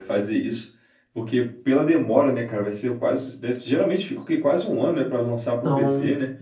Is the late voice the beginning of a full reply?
Yes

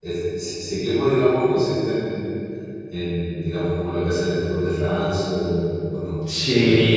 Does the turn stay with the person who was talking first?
No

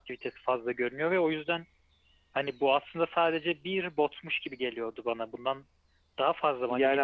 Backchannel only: No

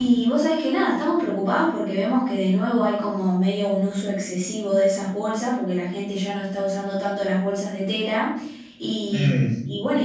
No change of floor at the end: Yes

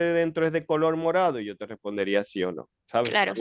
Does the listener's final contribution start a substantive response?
Yes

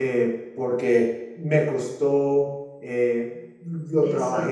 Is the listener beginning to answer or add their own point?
No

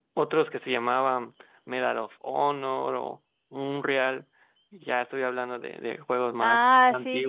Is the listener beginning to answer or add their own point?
Yes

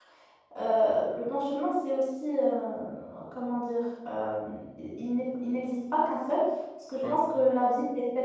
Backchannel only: Yes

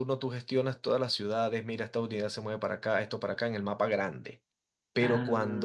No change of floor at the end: Yes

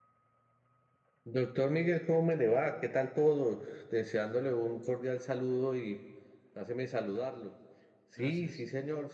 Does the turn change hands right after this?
No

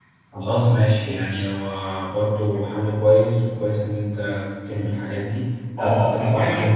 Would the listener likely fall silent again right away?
No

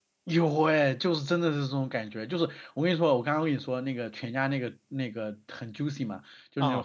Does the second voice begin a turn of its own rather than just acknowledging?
No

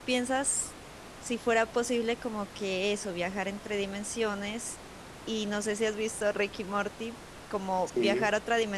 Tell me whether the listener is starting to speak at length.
No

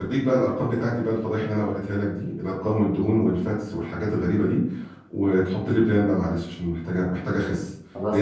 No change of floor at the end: Yes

